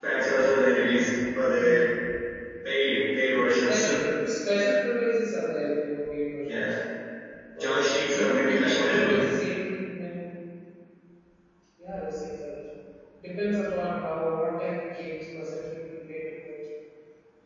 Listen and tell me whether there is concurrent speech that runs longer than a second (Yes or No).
Yes